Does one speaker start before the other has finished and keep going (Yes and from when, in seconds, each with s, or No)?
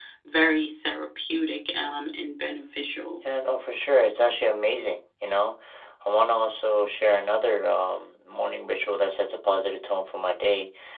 No